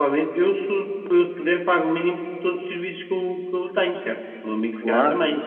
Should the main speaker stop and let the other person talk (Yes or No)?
Yes